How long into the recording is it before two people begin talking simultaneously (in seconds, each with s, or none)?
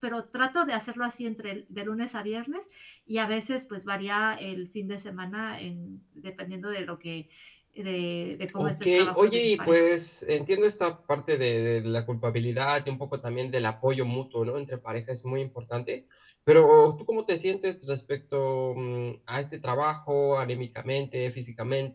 8.6 s